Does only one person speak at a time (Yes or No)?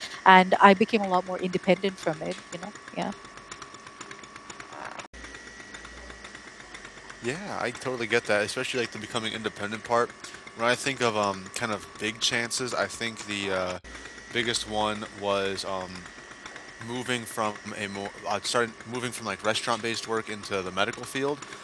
Yes